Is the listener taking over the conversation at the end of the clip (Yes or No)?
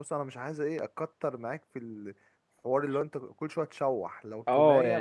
Yes